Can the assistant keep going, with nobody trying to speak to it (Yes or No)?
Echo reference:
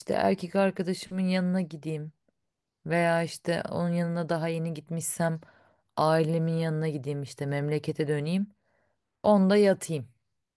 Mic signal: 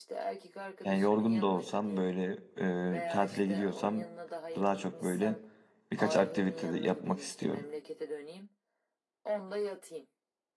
No